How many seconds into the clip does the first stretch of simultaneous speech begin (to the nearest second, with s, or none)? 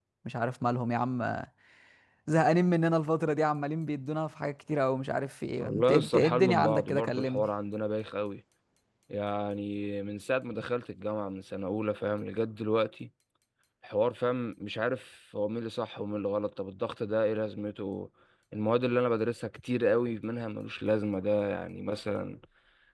6 s